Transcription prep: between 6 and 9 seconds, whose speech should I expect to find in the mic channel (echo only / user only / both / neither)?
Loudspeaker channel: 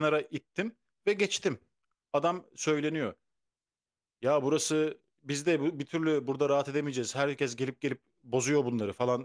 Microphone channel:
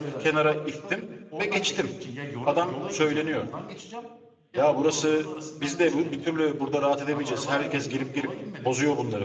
both